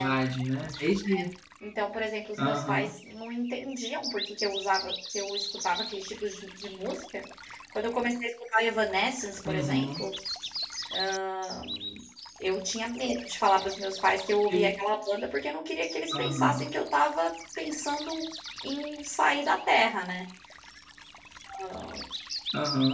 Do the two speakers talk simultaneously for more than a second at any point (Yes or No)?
No